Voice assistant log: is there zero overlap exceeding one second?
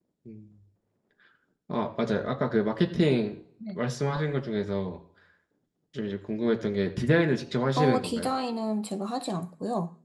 Yes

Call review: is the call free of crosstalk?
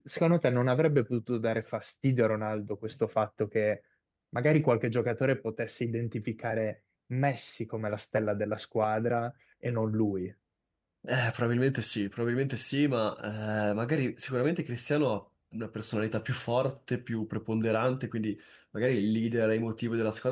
Yes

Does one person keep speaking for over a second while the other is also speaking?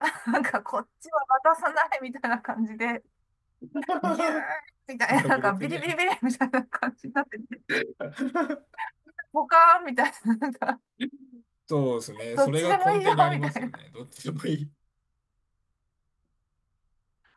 Yes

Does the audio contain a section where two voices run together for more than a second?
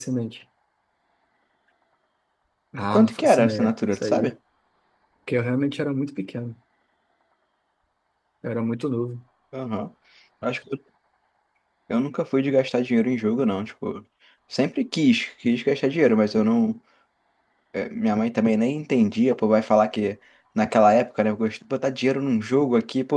Yes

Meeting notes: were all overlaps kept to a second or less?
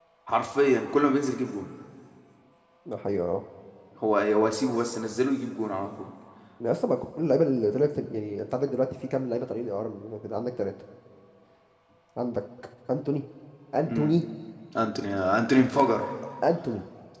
Yes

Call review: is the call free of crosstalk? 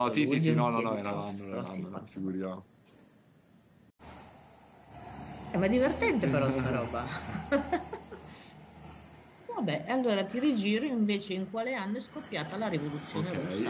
No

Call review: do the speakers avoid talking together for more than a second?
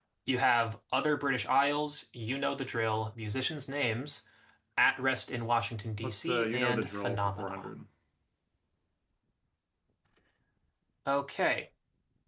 No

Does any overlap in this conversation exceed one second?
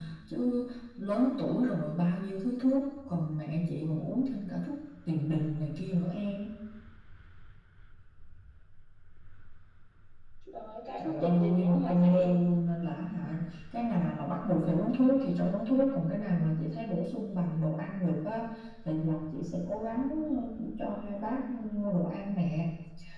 Yes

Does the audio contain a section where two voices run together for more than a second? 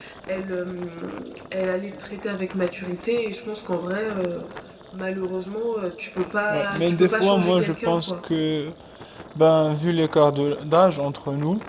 Yes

